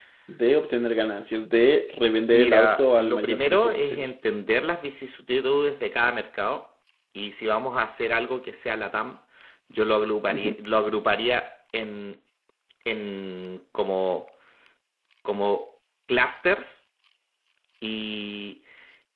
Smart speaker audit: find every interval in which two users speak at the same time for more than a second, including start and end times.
2.3-4.1

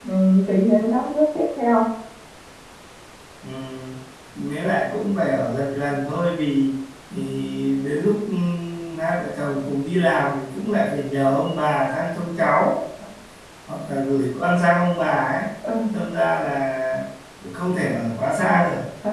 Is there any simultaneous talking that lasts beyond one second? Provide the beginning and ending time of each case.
none

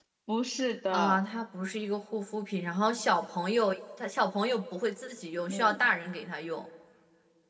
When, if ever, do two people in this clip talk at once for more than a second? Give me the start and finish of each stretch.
none

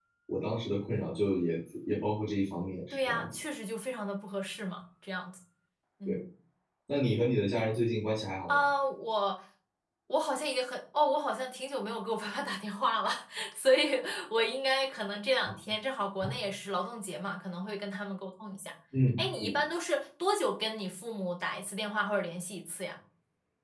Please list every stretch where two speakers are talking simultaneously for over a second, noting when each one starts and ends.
none

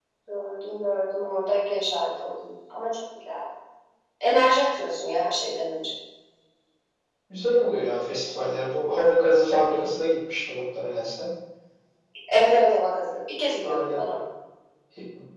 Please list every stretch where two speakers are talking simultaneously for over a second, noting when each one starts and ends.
none

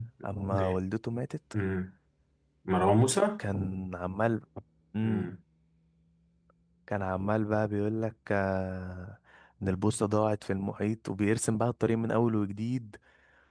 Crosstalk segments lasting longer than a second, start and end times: none

